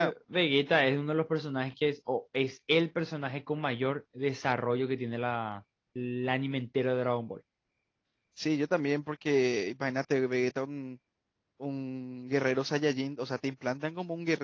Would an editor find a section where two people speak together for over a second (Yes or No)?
No